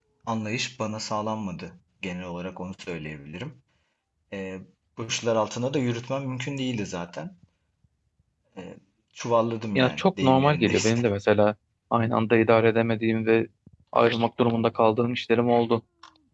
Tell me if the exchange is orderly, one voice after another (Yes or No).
No